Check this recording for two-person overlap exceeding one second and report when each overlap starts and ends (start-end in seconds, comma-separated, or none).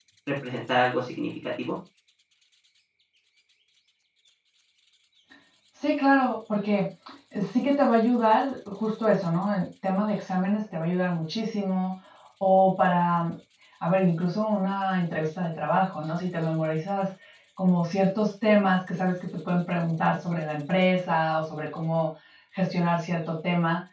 none